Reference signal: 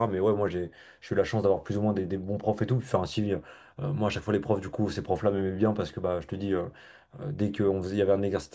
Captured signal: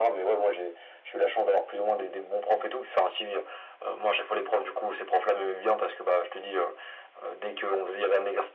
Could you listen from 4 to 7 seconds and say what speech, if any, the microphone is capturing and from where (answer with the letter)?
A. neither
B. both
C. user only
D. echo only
D